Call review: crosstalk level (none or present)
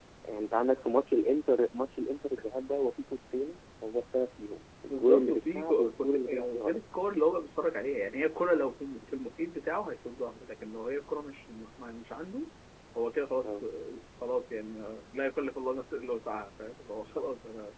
present